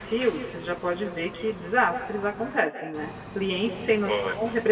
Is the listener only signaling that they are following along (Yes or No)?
Yes